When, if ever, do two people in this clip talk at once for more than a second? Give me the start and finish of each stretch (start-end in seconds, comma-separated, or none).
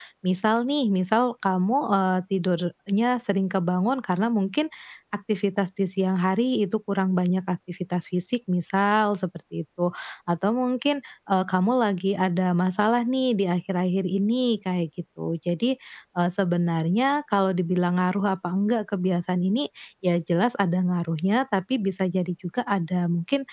none